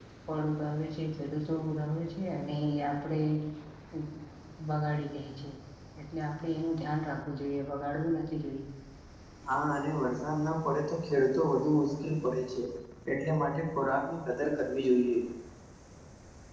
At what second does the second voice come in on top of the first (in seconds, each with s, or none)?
none